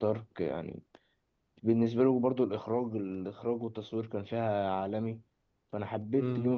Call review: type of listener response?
taking over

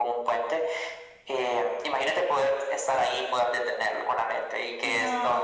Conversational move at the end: taking over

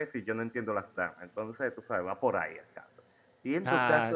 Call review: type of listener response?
listening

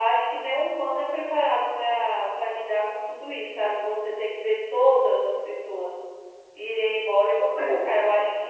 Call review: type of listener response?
listening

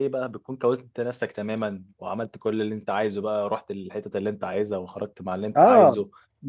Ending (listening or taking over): taking over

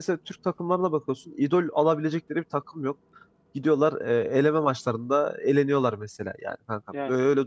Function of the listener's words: listening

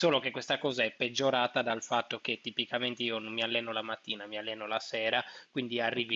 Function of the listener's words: listening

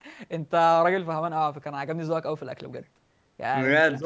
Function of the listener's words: taking over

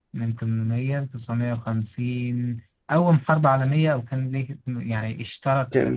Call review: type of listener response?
taking over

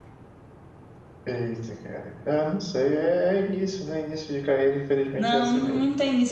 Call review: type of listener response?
taking over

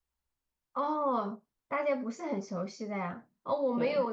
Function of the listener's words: listening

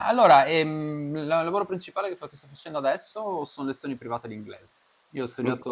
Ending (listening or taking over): listening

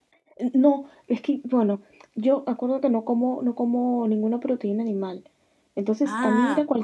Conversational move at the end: listening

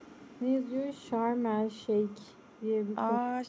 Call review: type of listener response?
taking over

